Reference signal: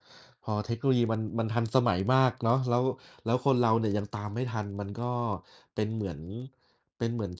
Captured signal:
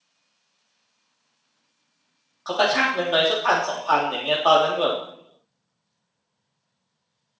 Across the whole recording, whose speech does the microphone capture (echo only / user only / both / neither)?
user only